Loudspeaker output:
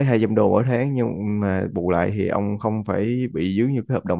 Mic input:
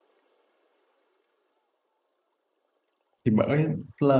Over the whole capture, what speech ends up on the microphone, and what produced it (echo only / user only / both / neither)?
user only